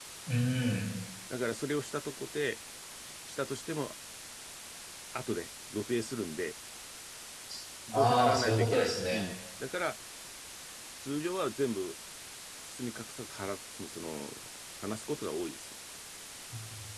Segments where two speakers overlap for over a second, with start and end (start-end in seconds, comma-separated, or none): 7.9-9.3